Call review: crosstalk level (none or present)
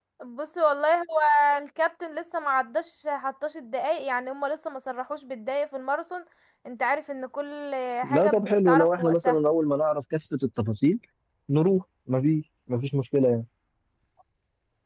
present